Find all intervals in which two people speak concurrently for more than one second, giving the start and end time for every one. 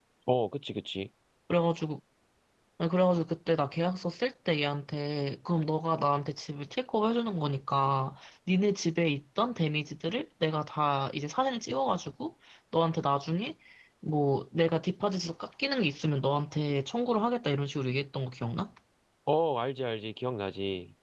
none

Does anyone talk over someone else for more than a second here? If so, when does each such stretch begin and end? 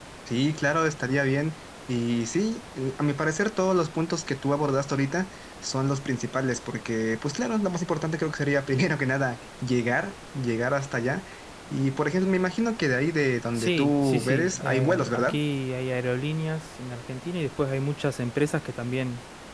13.6-15.3

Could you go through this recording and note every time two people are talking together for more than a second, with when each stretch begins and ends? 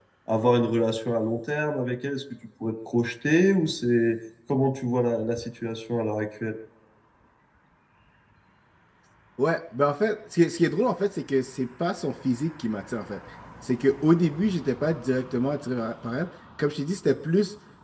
none

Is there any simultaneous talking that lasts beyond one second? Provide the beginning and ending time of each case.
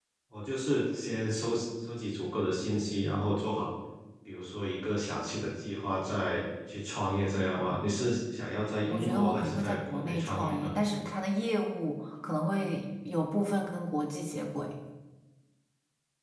8.9-10.7

